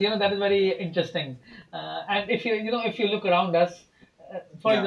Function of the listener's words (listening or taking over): listening